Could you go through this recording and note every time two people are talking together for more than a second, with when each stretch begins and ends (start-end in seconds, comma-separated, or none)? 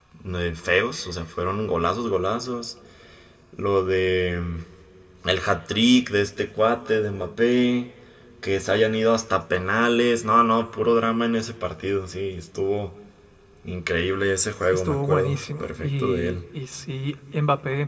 14.7-16.4